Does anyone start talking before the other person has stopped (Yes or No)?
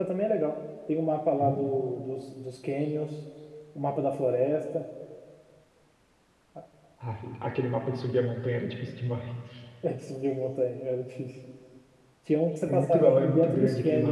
Yes